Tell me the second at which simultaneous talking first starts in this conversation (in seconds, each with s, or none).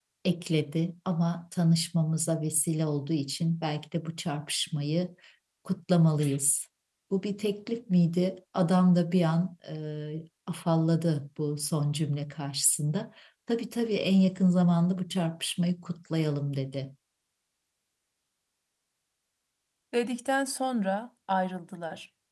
none